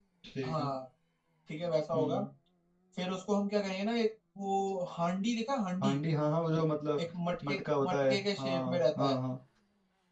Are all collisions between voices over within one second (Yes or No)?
No